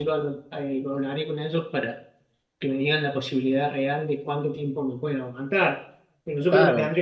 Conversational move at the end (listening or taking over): listening